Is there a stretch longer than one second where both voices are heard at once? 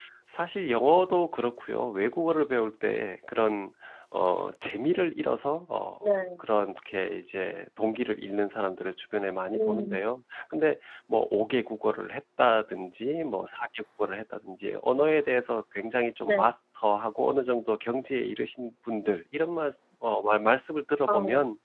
No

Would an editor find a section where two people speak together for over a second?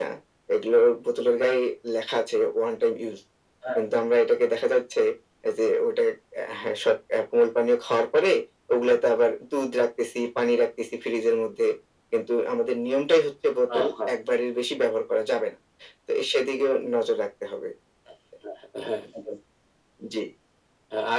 No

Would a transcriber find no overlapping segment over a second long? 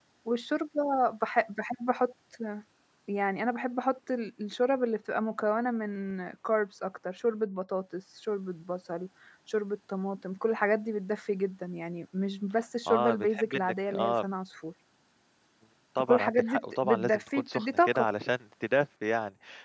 No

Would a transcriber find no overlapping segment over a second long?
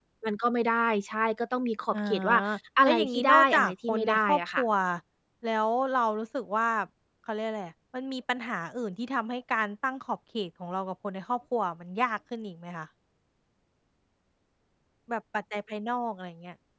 No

